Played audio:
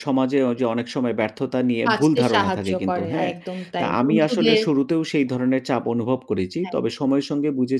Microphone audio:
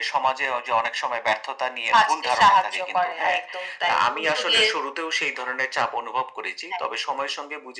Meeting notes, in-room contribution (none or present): none